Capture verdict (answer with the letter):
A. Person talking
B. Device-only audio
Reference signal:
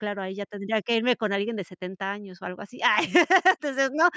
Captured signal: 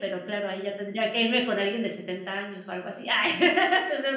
B